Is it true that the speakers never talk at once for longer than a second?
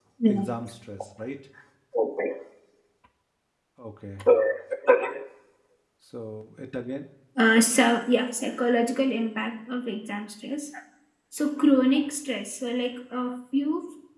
Yes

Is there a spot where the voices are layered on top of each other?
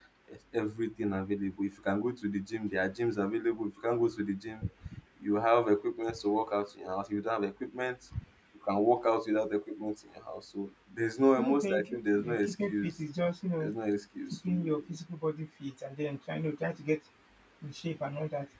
Yes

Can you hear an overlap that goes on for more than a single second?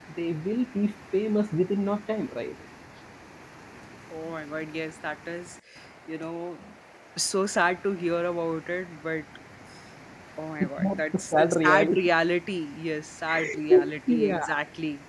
Yes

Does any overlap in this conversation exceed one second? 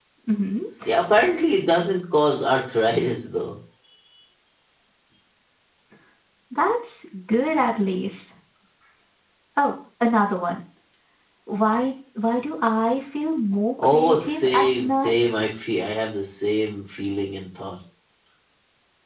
Yes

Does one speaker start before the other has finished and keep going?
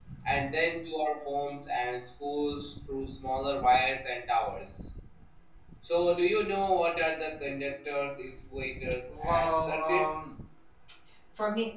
Yes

